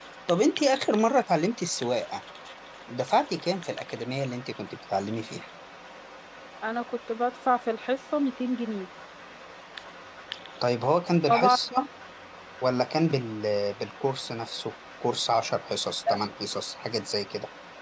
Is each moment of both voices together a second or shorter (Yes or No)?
Yes